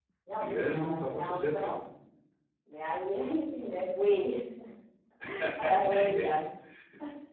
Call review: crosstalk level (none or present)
present